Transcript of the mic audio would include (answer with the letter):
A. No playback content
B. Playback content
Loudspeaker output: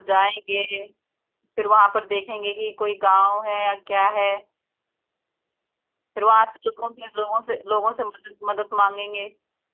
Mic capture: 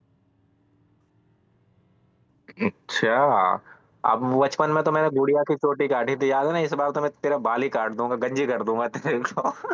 A